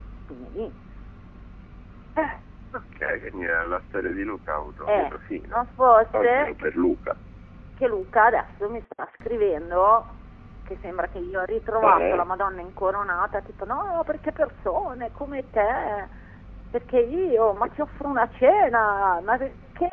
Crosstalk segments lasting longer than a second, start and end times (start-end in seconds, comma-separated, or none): none